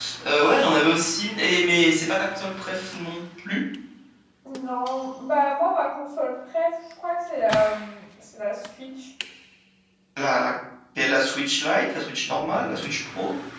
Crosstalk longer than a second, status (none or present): none